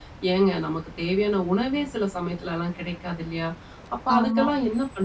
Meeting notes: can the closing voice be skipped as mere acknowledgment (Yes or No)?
Yes